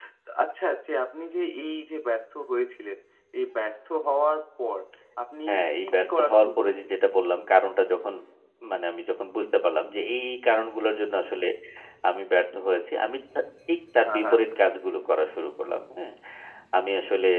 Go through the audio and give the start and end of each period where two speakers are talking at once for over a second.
5.5-7.0

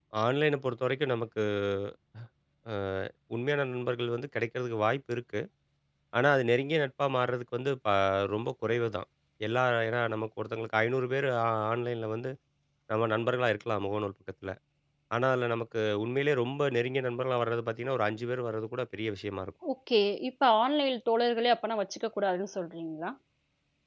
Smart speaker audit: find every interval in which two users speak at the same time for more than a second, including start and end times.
none

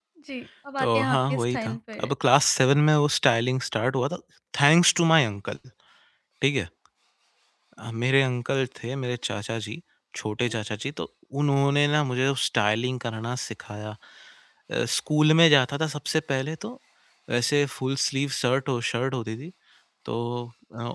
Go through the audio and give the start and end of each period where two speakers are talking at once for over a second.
0.8-2.1

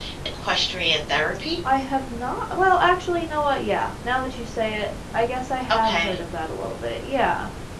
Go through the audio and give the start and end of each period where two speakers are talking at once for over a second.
none

